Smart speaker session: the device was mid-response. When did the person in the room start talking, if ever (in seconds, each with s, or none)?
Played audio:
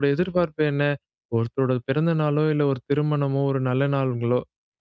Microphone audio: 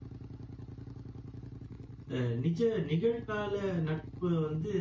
2.1 s